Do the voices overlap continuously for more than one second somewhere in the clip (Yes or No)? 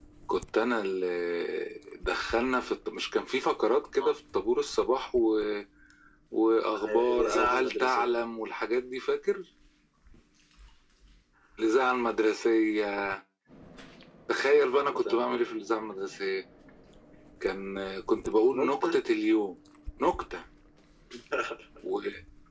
Yes